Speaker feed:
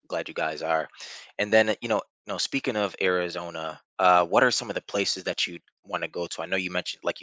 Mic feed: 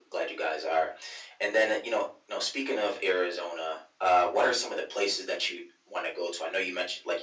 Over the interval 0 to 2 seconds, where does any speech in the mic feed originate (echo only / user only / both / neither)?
echo only